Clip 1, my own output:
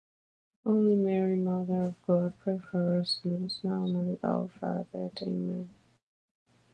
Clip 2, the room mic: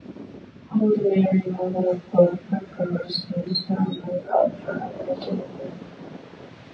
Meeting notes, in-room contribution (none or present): none